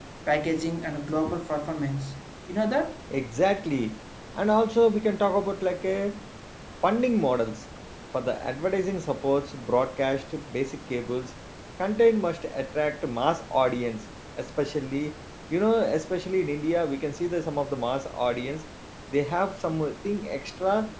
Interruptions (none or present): none